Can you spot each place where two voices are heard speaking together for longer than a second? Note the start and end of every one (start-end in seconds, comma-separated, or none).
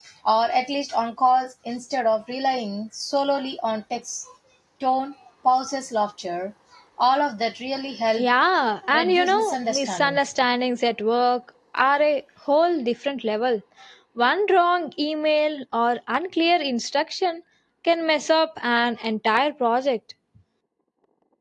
8.9-10.2